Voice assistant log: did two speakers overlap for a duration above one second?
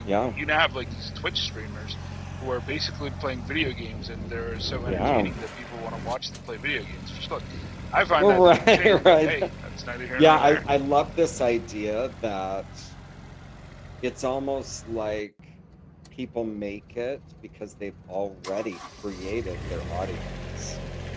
Yes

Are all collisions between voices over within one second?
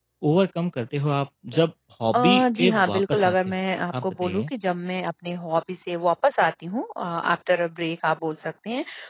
No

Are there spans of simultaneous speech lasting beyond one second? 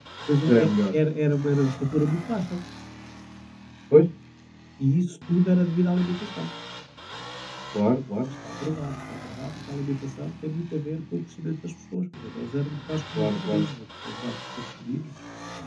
No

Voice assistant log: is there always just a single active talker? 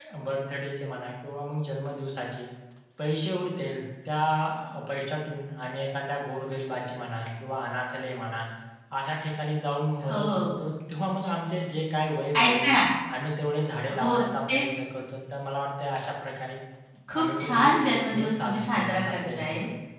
No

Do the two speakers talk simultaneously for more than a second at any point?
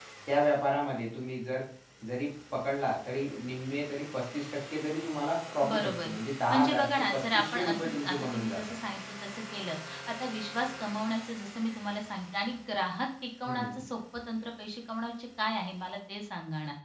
Yes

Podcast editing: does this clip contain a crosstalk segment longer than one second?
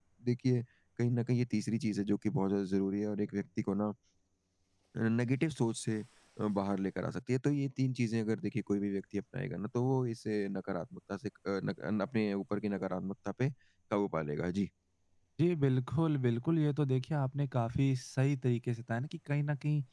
No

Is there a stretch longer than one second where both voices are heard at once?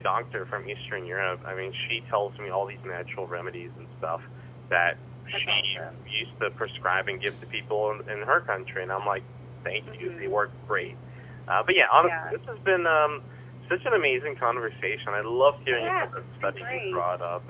Yes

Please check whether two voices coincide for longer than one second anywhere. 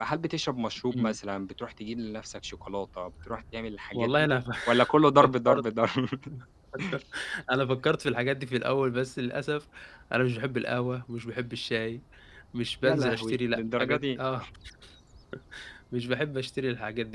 Yes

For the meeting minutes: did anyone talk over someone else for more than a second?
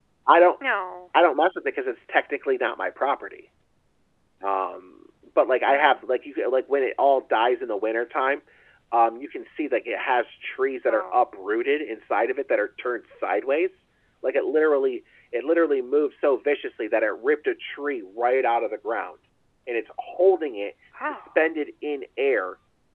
No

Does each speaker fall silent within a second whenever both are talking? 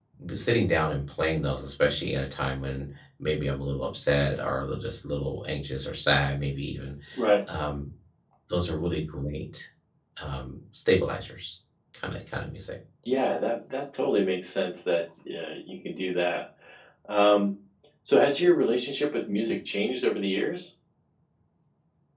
Yes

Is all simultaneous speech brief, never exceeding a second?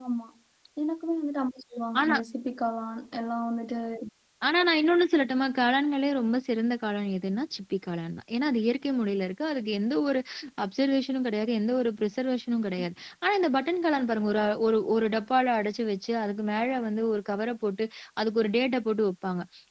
Yes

